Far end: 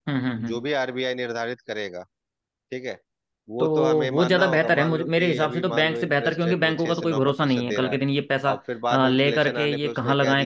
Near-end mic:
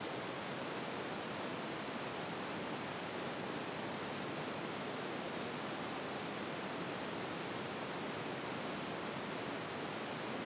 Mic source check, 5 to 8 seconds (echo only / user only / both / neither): neither